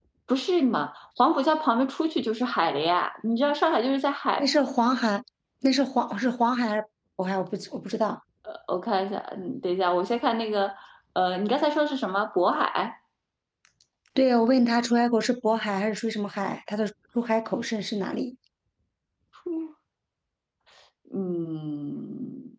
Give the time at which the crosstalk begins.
none

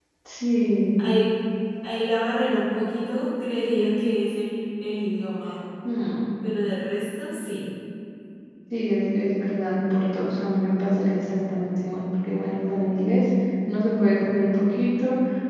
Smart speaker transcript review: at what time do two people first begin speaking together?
none

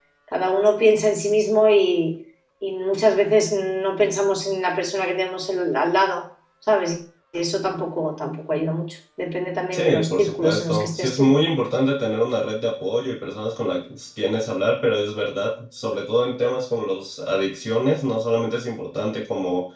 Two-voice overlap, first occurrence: 9.7 s

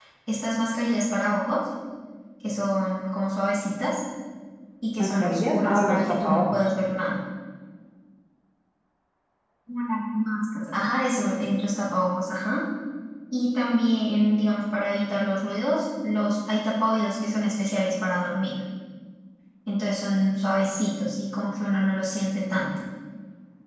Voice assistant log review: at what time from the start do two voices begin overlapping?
5.0 s

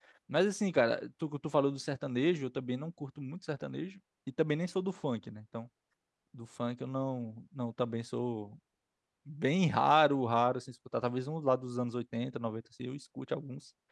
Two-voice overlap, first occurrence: none

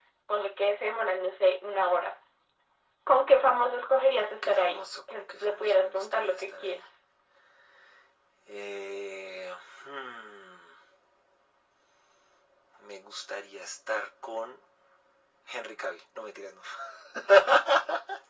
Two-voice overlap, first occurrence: 4.4 s

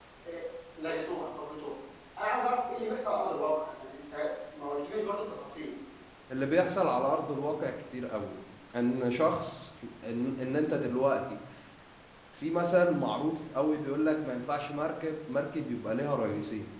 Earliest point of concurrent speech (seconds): none

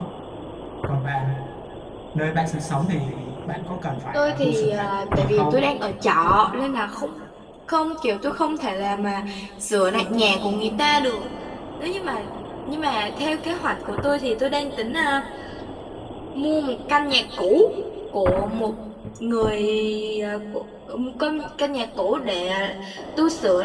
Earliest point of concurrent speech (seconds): 4.1 s

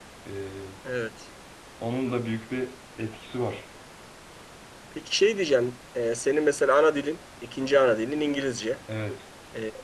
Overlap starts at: none

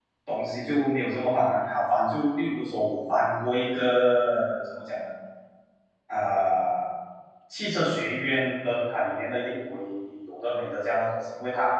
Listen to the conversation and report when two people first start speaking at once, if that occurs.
none

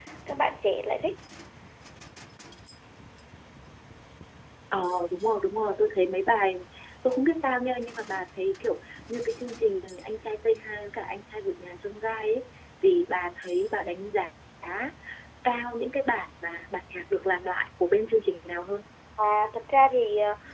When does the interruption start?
none

